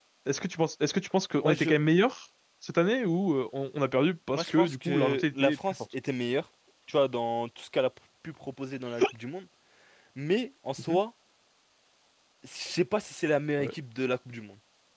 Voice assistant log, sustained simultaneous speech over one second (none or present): present